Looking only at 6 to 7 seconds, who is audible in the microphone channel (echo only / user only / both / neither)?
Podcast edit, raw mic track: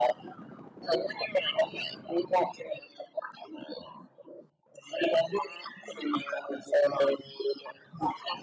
echo only